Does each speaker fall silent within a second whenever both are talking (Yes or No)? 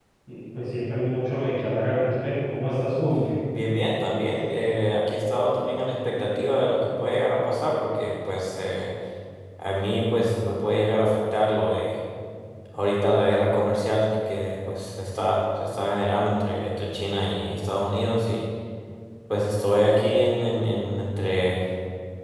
Yes